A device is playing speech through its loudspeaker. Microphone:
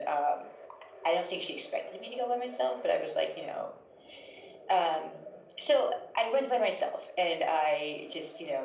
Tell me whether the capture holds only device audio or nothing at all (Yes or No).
Yes